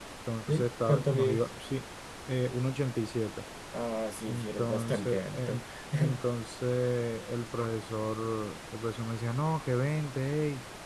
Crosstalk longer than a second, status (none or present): present